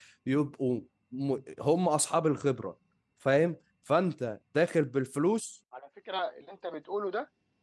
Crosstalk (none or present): none